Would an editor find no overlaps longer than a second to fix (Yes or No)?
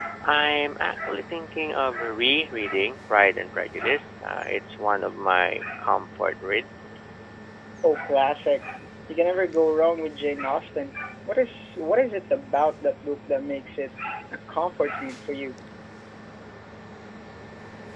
Yes